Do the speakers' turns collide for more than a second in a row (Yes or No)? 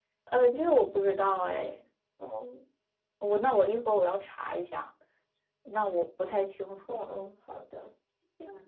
No